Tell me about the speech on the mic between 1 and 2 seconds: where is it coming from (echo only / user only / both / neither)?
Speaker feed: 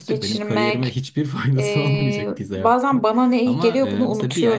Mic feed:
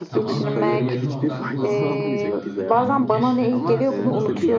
both